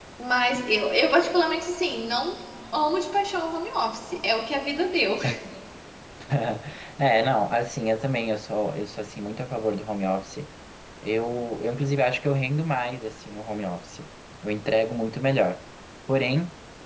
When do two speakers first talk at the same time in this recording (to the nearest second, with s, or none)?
none